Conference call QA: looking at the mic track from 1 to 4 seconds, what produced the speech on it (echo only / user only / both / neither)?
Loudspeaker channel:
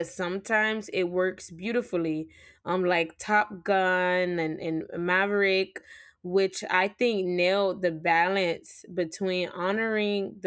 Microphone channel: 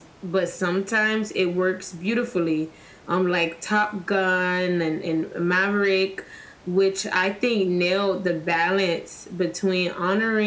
echo only